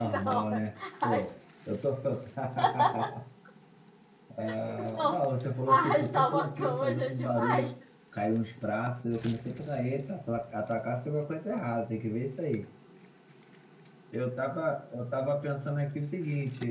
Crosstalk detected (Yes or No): Yes